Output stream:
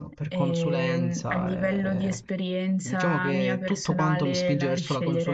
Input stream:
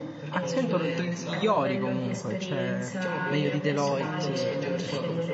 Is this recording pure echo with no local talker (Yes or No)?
No